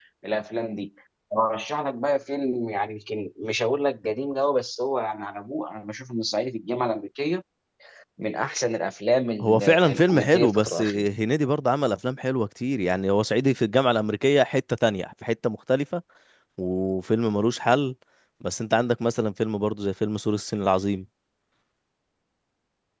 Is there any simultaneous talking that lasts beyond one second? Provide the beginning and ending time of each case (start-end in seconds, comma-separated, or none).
9.4-10.8